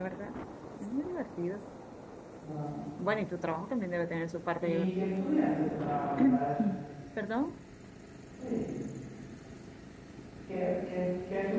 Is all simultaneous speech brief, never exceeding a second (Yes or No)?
Yes